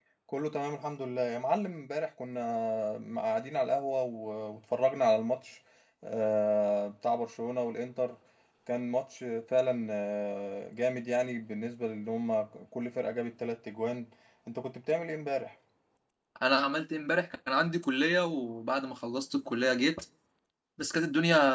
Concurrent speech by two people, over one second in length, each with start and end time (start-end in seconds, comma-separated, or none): none